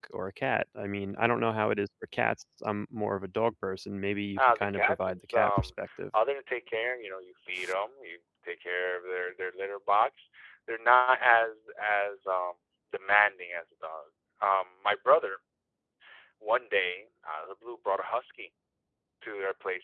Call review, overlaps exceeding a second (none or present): present